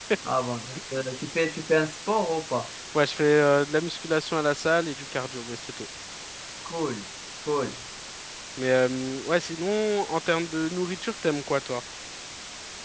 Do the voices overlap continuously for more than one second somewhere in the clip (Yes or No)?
No